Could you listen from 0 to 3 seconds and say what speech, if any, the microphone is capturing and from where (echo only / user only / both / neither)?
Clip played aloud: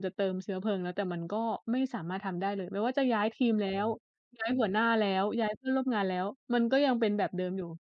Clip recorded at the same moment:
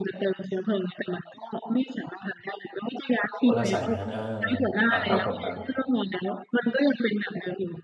echo only